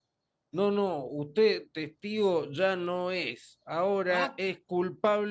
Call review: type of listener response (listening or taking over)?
listening